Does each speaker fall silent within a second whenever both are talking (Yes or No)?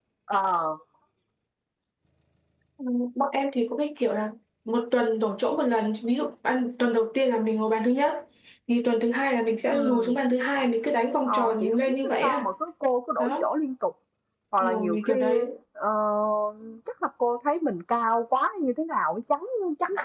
No